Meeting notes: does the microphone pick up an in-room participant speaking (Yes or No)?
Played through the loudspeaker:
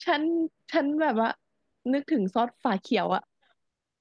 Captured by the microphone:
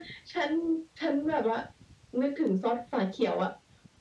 No